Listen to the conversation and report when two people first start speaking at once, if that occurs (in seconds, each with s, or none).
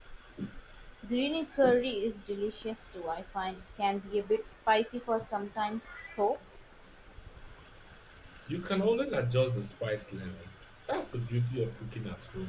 none